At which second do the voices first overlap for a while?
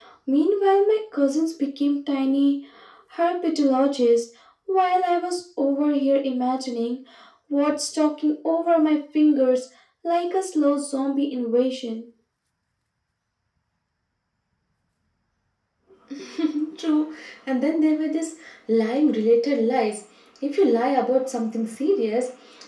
none

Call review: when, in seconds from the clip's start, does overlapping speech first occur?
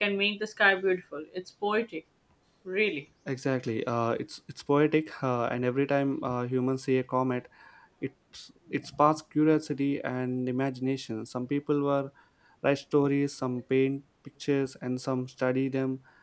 none

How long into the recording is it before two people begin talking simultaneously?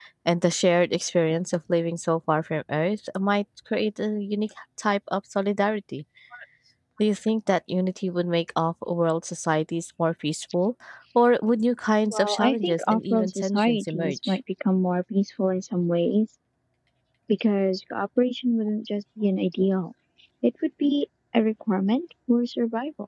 12.1 s

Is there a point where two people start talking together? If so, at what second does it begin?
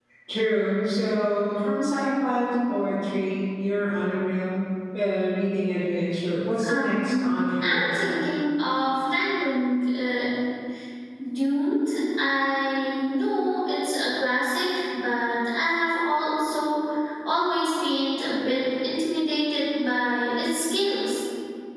6.6 s

